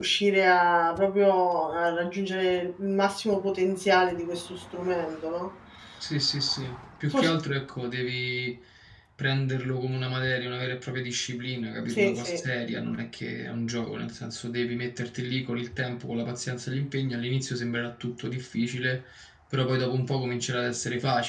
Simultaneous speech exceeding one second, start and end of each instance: none

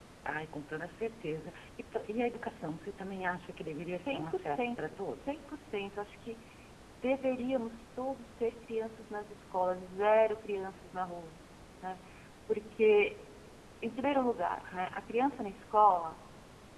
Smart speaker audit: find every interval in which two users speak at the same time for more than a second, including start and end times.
3.9-5.5

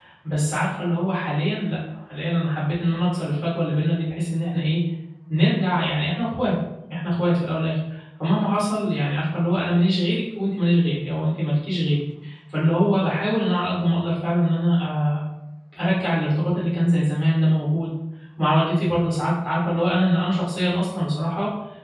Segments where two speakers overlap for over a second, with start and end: none

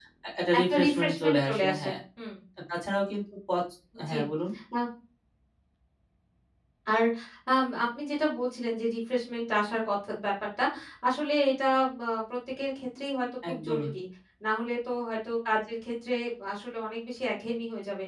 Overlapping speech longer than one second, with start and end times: 0.6-2.0

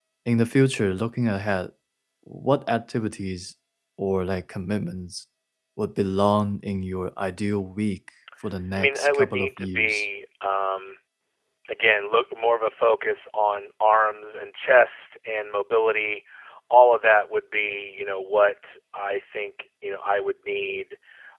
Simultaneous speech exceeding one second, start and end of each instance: 8.7-10.0

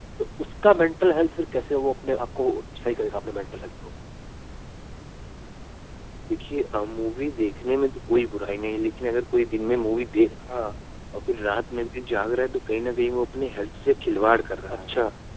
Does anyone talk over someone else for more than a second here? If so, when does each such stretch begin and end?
none

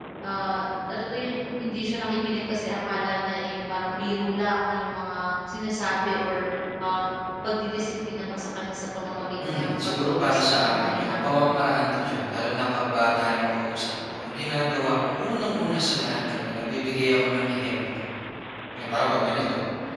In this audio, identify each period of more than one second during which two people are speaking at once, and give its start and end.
9.4-11.5

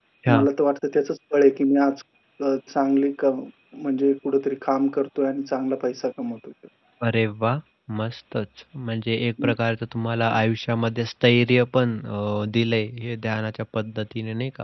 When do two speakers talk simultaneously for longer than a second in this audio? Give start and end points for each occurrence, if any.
none

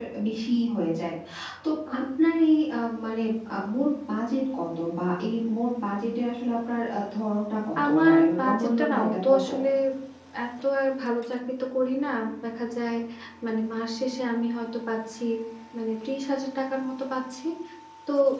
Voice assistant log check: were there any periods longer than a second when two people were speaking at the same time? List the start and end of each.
7.8-9.5

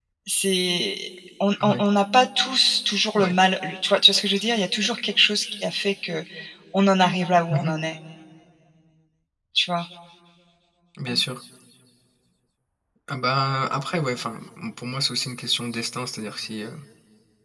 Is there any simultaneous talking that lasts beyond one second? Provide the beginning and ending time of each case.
none

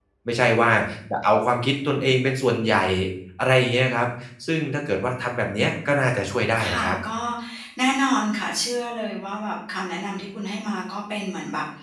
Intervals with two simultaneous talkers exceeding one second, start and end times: none

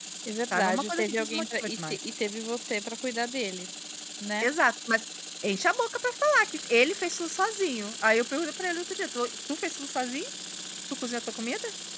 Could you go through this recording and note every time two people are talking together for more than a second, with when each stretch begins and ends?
0.5-2.0

